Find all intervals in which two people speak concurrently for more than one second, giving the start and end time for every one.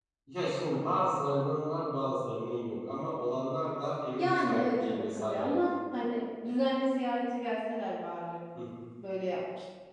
4.2-5.6

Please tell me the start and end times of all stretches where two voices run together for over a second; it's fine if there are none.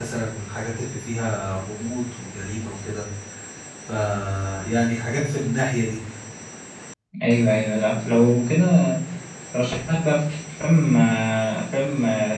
none

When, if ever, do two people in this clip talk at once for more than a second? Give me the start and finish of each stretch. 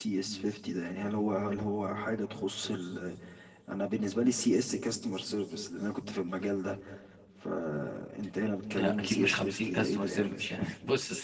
8.8-10.7

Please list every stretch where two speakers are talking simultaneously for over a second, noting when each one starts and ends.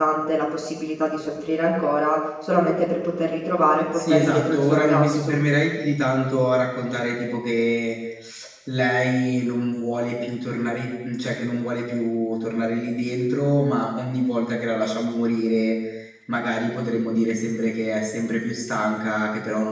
3.9-5.4

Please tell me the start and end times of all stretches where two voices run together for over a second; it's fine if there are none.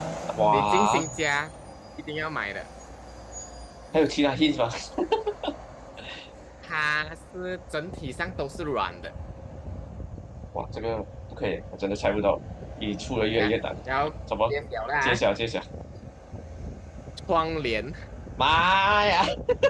none

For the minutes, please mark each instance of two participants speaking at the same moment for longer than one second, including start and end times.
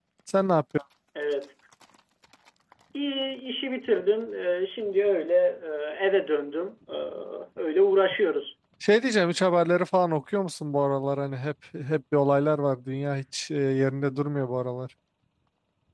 none

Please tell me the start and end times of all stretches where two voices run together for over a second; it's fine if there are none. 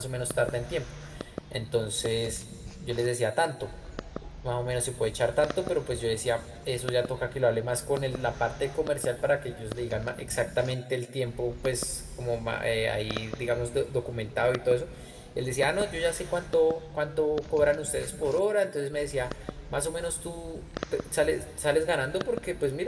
none

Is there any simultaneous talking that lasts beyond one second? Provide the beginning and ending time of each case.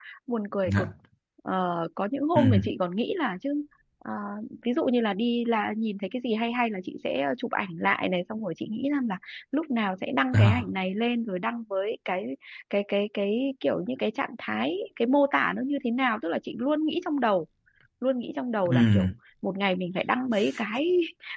none

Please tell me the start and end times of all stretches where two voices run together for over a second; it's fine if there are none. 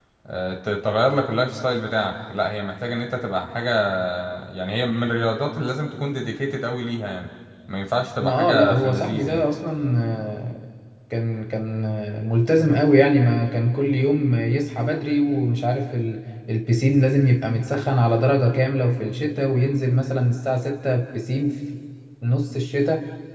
8.2-9.4

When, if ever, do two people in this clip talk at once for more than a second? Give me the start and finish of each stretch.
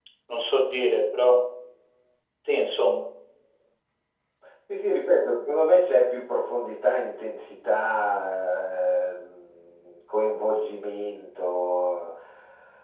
none

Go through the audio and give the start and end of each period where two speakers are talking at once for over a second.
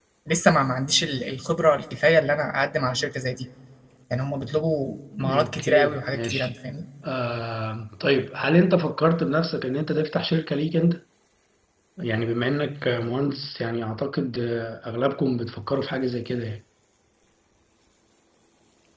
5.2-6.5

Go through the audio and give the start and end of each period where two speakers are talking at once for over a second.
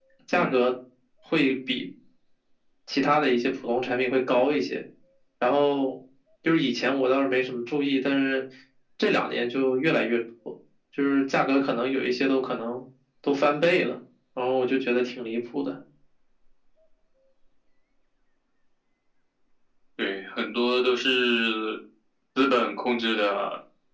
none

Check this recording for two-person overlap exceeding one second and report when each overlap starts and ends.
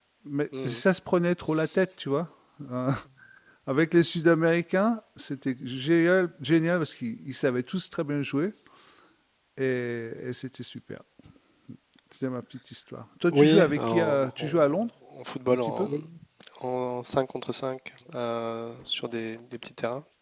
13.3-14.7

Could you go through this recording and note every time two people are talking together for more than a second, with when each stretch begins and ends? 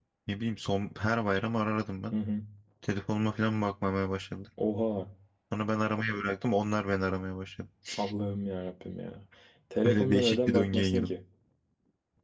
9.8-11.1

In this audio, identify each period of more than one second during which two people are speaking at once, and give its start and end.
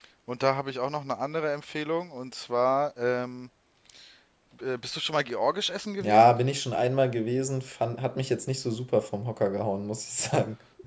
none

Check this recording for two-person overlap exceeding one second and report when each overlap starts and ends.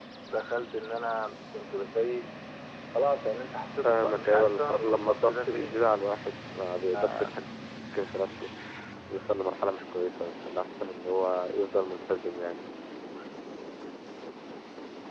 3.8-6.0

